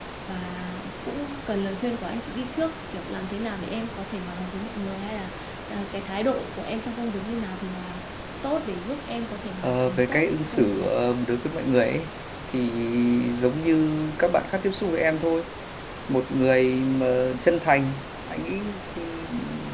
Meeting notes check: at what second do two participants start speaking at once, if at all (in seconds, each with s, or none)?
9.6 s